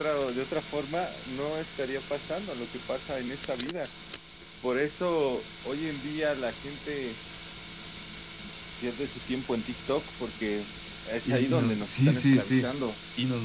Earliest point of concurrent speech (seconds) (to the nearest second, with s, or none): 11 s